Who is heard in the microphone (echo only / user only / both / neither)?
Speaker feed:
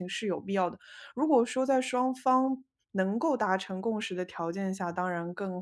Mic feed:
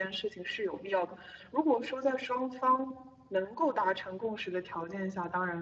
echo only